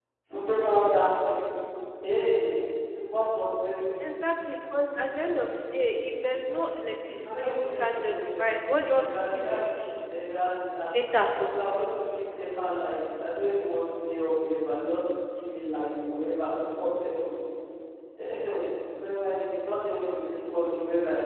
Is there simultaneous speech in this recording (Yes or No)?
Yes